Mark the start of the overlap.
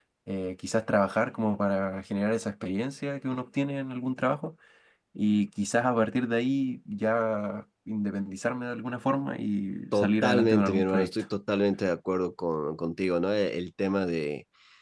9.9 s

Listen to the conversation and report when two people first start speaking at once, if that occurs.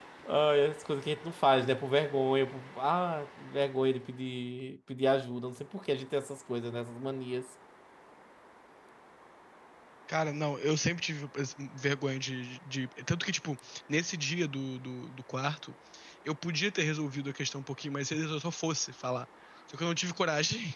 none

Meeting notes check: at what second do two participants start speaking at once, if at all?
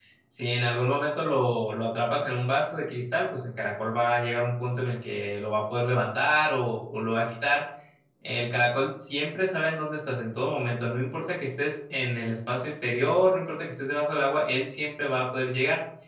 none

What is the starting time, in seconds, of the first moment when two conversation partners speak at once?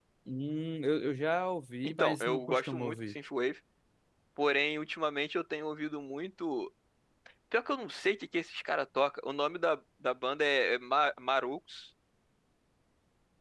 1.8 s

